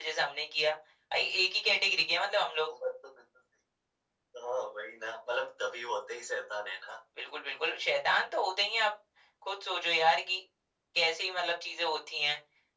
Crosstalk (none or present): none